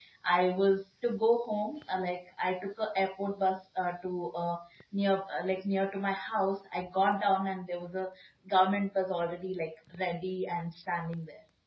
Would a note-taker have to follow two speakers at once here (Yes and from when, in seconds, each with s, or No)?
No